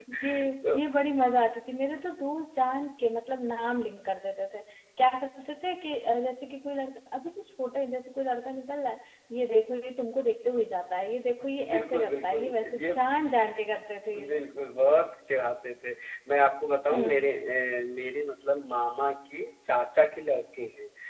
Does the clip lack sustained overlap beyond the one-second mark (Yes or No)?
No